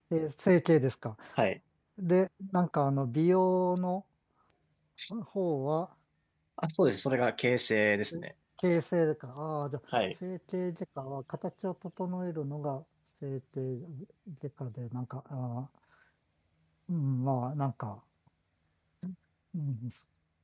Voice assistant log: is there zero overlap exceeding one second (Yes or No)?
Yes